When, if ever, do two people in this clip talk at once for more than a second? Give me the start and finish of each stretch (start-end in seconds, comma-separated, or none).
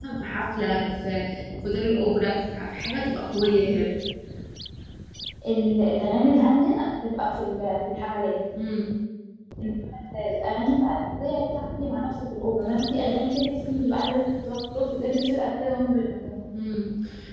none